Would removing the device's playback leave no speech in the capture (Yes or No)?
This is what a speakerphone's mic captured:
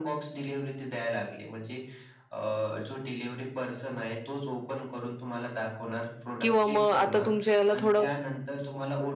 No